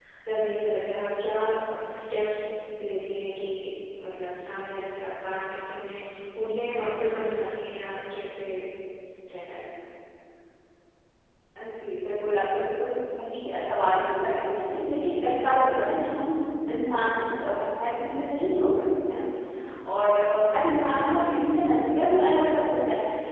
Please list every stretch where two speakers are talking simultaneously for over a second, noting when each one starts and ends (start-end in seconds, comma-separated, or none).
none